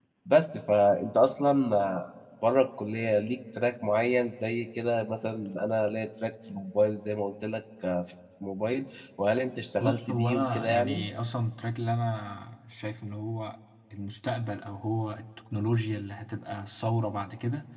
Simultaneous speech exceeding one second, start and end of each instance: 9.8-11.0

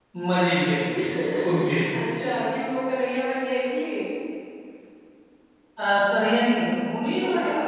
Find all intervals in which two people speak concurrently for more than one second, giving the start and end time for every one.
none

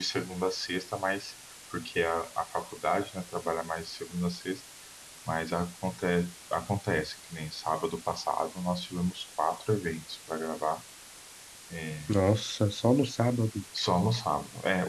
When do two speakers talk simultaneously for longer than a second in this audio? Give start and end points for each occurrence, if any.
none

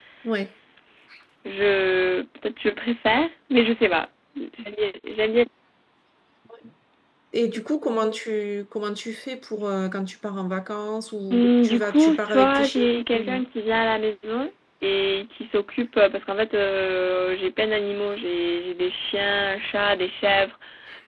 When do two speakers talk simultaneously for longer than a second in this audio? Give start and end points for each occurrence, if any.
11.3-13.4

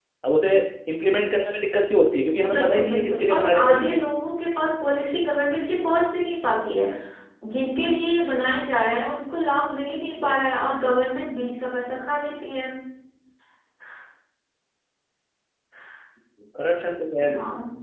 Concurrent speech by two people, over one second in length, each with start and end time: 2.5-4.0

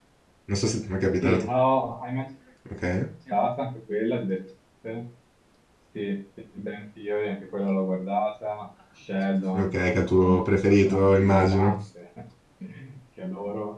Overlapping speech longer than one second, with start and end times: 9.5-11.7

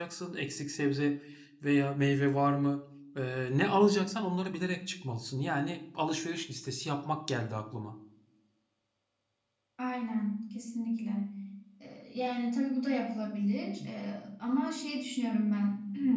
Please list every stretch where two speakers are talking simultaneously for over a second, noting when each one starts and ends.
none

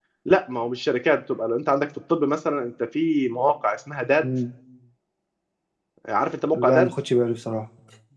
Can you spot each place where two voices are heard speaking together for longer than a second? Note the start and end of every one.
none

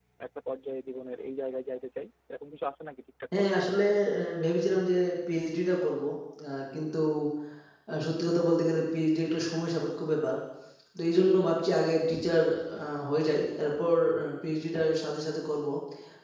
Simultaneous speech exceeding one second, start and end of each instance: none

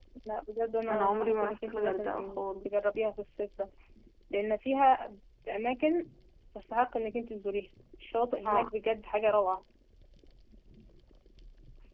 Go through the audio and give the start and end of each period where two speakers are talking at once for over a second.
0.9-2.9

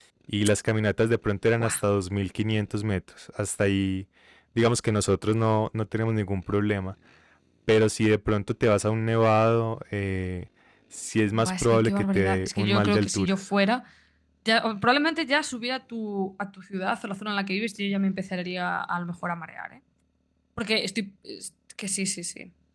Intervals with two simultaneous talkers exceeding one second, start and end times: 11.3-13.4

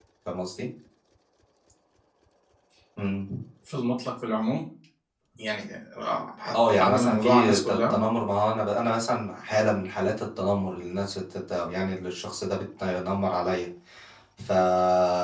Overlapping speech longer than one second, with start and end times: 6.8-8.0

